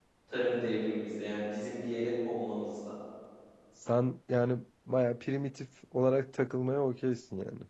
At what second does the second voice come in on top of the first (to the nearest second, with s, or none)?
none